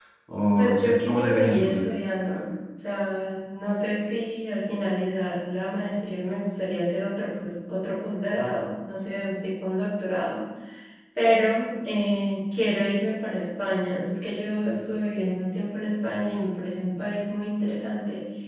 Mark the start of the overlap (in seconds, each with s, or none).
0.6 s